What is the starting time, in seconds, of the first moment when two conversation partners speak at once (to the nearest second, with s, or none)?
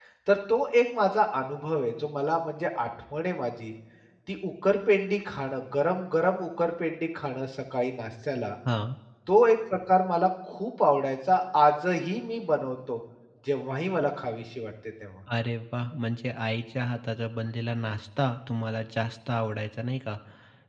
none